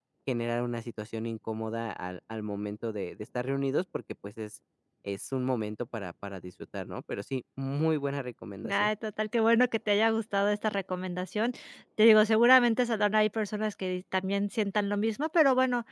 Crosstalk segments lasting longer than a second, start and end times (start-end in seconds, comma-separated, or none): none